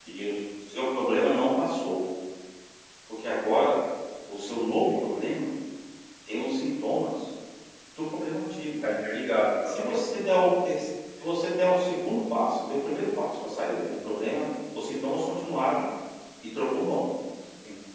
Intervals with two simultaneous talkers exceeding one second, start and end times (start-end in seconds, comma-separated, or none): none